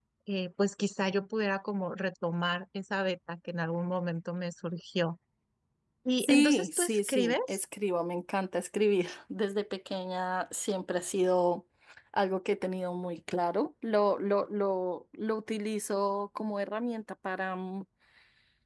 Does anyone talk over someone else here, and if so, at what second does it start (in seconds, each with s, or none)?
6.2 s